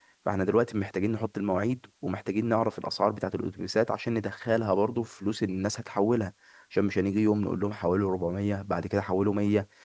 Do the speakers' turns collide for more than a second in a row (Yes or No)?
No